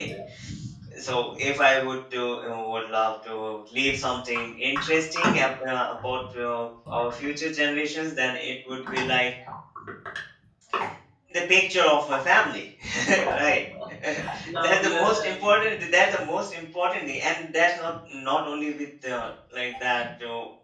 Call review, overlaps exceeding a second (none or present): present